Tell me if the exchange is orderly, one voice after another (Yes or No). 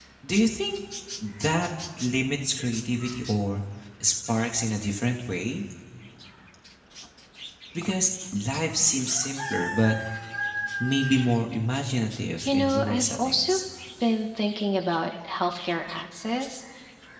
No